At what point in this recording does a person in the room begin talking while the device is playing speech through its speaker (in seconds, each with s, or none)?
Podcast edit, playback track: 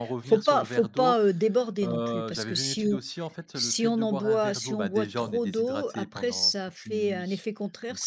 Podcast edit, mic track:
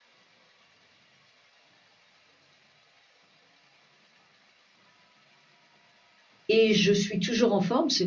6.5 s